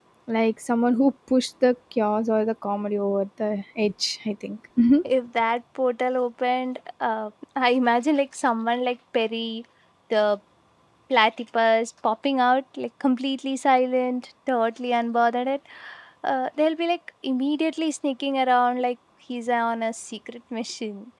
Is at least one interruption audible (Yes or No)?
No